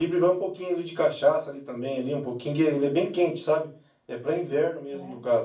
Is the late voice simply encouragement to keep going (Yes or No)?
Yes